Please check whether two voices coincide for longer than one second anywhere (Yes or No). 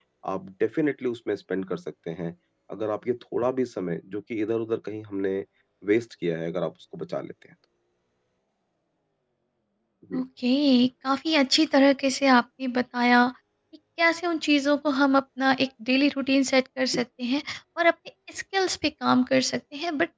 No